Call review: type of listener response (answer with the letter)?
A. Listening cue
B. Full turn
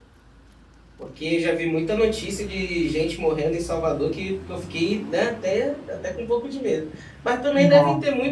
A